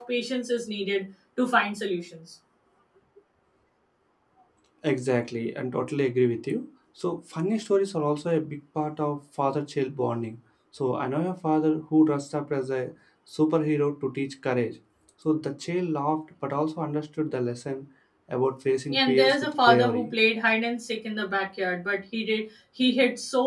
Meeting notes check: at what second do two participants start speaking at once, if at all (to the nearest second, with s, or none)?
19 s